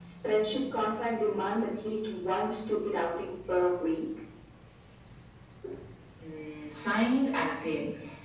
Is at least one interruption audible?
No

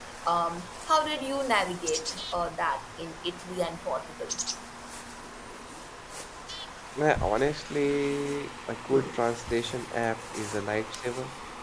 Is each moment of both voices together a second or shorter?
Yes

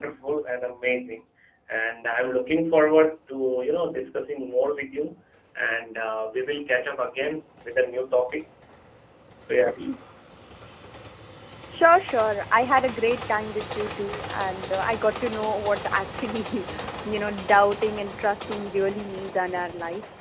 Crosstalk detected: No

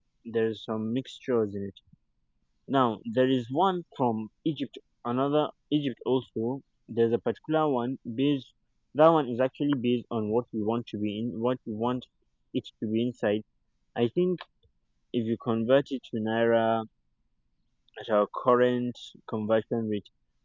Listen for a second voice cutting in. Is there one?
No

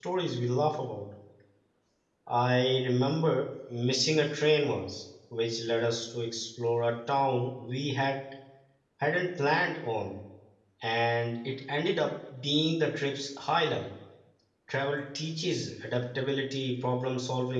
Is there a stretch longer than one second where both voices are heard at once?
No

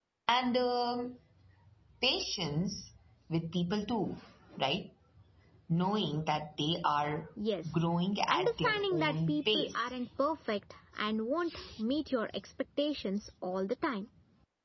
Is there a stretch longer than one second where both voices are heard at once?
Yes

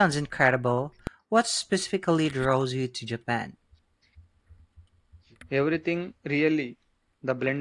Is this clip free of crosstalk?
Yes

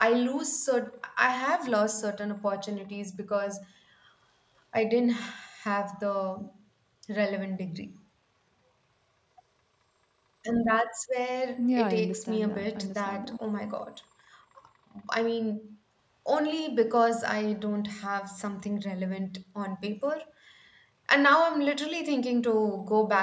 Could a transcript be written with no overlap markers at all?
No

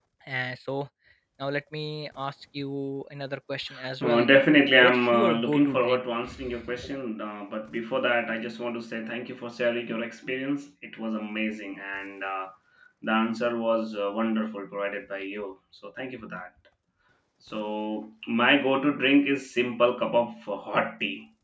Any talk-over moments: Yes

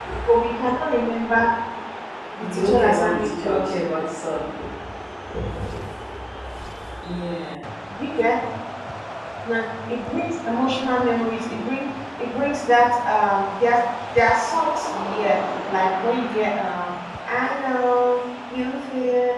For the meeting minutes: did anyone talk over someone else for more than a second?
Yes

